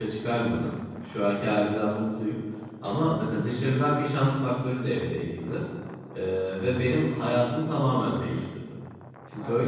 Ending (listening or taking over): listening